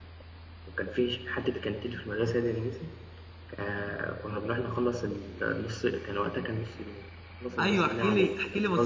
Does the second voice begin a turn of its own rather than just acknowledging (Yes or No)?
Yes